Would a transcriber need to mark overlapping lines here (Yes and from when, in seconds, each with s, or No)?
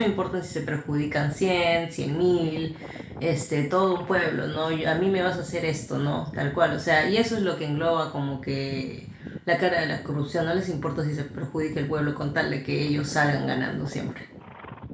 No